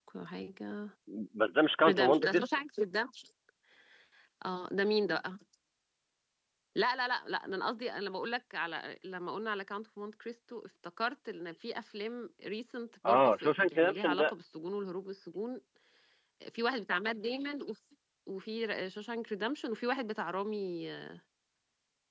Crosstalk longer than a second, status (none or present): present